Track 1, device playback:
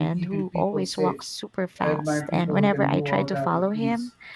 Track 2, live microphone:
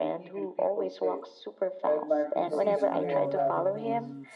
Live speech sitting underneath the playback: Yes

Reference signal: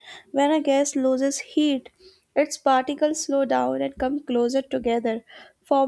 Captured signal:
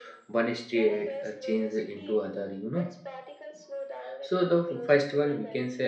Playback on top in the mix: No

